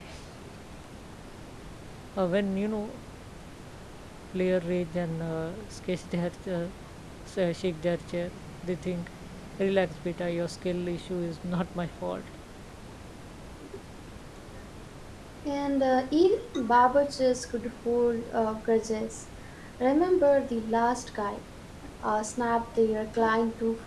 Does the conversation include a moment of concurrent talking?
No

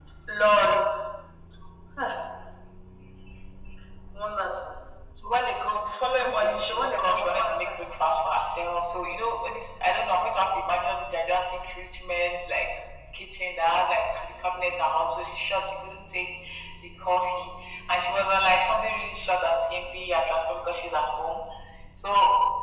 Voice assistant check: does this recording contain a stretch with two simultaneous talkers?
Yes, from 6.2 s

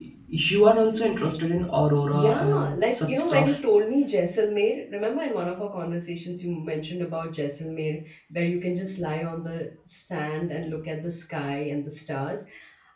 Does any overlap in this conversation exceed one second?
Yes, from 2.1 s

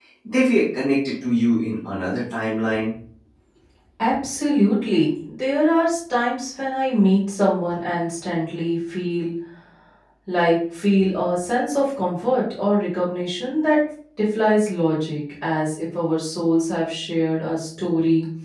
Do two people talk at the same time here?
No

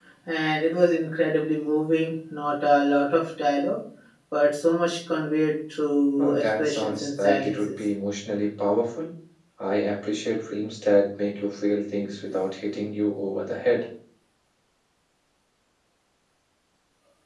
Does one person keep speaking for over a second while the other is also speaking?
Yes, from 6.2 s

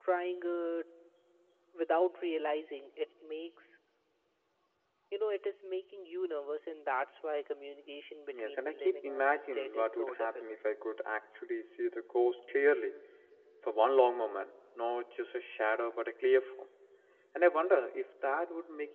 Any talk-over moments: Yes, from 8.3 s

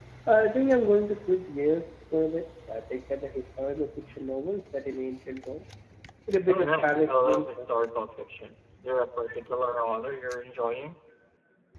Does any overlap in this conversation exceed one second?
Yes, from 6.5 s

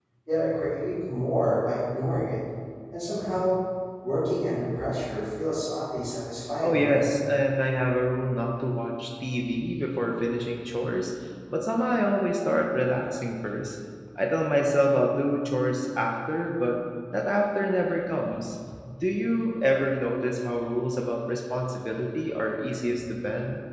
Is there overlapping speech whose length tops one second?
No

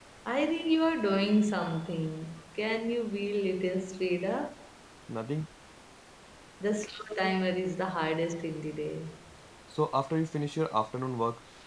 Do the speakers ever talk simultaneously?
No

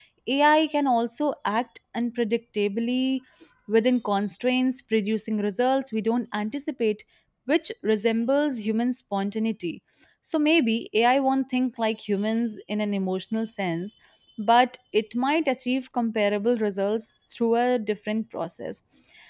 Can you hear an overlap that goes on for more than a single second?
No

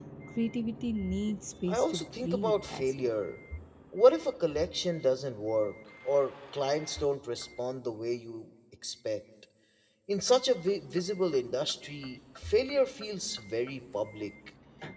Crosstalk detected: Yes, from 1.7 s

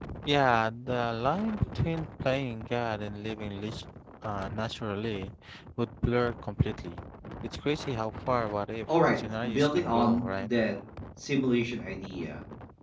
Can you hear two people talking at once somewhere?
Yes, from 8.9 s

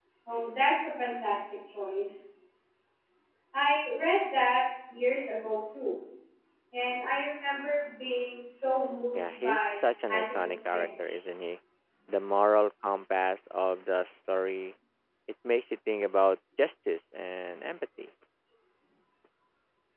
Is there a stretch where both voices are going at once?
Yes, from 9.1 s

